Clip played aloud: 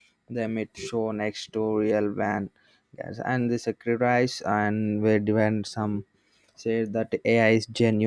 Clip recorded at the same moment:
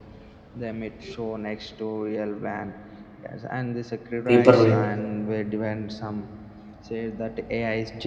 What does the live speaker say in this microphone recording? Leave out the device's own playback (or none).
paperweight.